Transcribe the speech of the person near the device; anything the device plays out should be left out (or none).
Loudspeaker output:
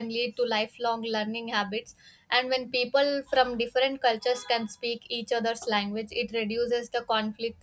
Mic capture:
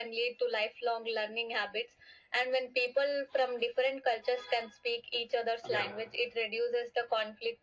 Yeah.